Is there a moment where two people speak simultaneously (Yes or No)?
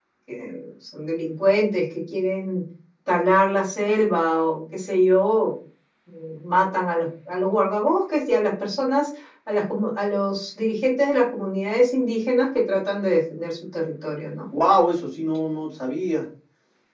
No